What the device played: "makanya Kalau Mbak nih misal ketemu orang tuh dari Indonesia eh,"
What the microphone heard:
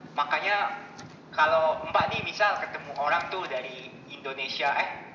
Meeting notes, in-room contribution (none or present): none